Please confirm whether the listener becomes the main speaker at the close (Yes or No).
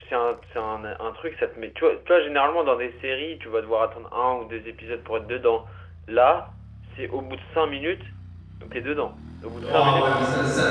Yes